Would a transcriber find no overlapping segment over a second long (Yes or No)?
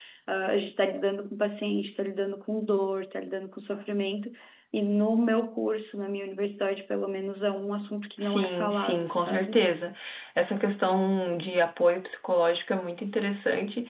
No